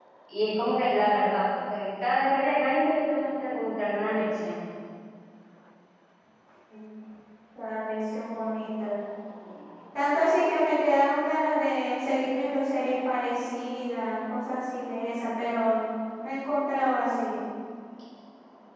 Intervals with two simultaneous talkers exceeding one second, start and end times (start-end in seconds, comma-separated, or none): none